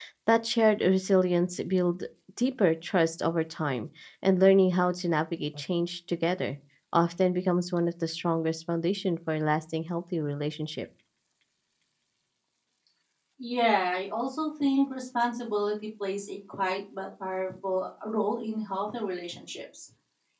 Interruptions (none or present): none